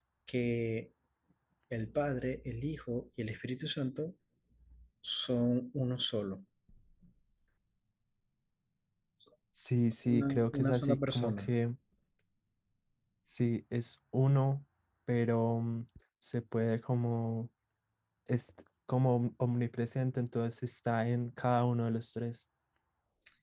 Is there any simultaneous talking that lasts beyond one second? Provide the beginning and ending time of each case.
10.1-11.5

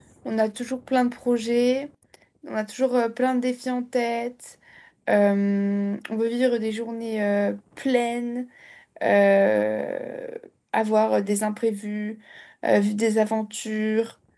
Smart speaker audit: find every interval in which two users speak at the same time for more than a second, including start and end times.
none

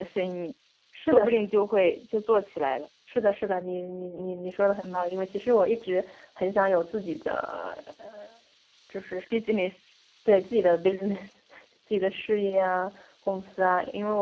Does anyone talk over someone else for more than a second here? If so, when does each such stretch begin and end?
none

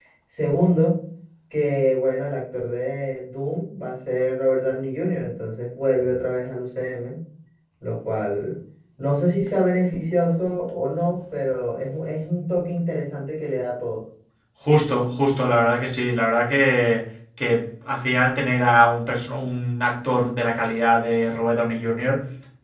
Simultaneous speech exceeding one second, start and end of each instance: none

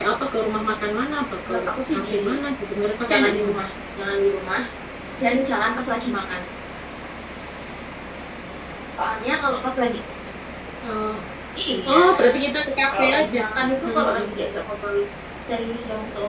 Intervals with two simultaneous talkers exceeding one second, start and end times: 12.9-14.2

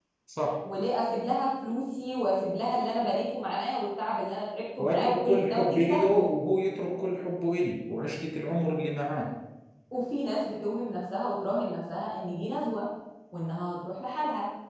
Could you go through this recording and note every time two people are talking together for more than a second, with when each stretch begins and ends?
4.8-6.3

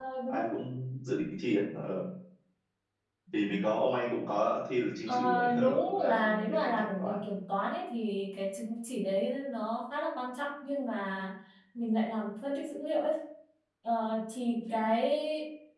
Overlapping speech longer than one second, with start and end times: 5.1-7.2

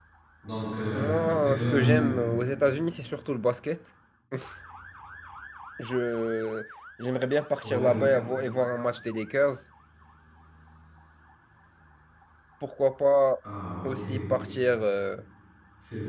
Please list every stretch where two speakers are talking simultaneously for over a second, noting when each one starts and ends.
0.9-2.2

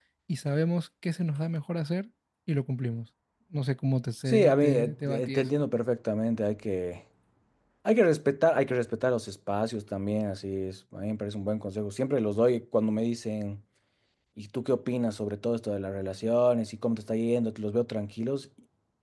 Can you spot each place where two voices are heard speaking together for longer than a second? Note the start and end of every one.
4.3-5.6

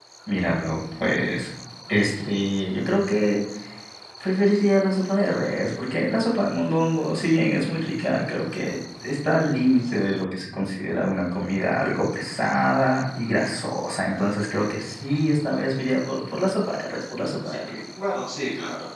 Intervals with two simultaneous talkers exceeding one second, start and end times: none

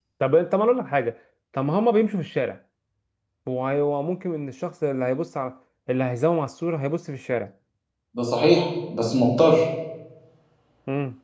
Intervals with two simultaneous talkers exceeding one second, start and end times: none

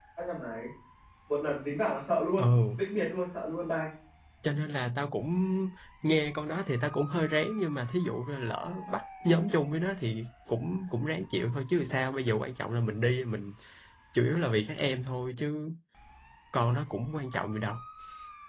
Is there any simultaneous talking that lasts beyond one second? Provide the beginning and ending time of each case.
none

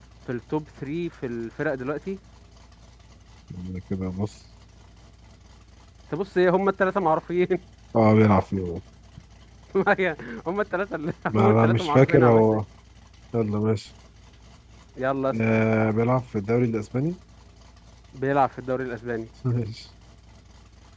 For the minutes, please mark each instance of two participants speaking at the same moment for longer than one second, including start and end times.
11.3-12.6

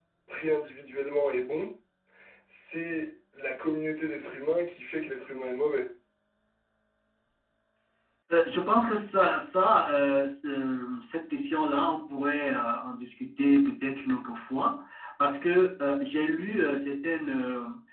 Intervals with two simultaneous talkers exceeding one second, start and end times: none

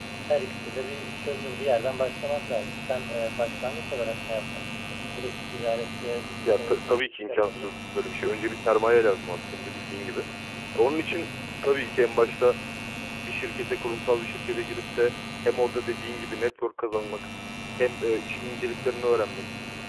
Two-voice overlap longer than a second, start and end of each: 6.5-8.0

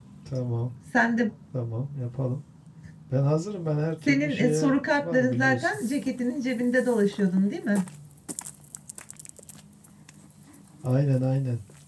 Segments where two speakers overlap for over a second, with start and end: 4.1-5.8

